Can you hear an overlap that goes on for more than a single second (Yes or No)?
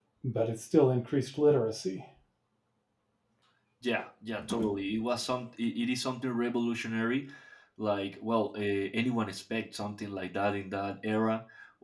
No